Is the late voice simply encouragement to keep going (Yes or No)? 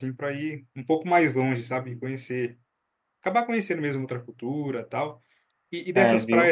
Yes